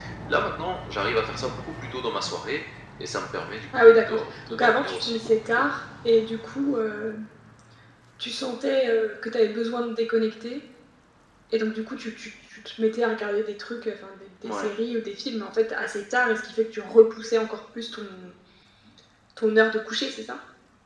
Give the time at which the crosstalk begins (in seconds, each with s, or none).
3.7 s